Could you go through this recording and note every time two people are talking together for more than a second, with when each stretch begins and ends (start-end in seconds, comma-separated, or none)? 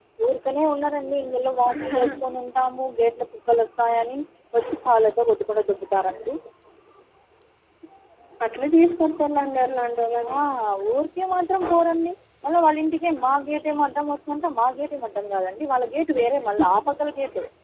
none